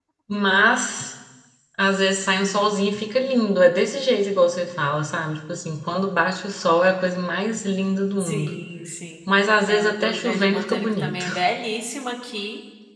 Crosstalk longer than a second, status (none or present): present